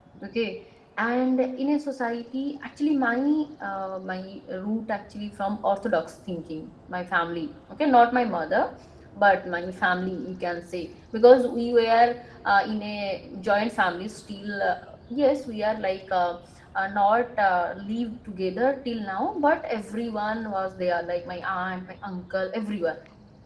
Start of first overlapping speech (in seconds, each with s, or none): none